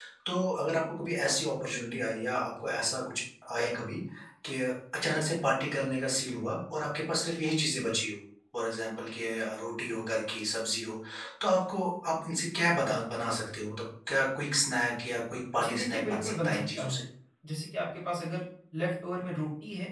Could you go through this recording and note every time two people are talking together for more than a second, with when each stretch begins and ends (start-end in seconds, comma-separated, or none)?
15.6-17.0